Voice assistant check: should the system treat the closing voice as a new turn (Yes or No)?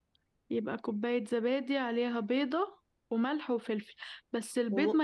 No